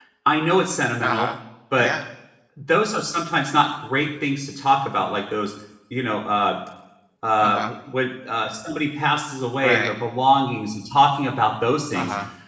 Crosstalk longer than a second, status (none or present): none